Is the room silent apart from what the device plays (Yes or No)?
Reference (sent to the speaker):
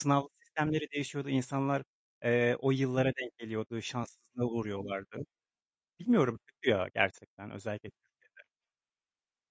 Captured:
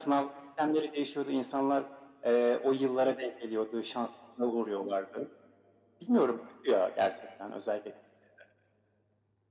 Yes